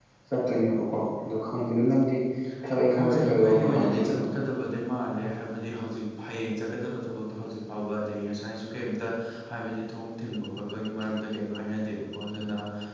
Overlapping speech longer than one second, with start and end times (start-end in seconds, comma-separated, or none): 3.0-4.2